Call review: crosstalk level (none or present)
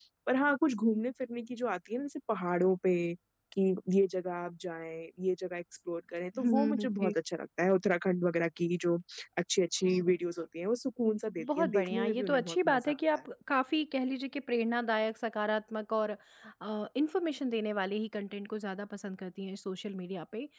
present